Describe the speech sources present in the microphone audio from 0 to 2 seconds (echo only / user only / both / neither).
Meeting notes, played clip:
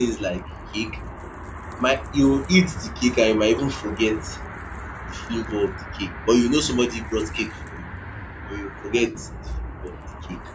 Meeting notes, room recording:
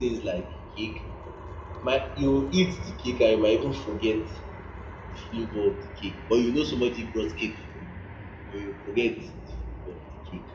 echo only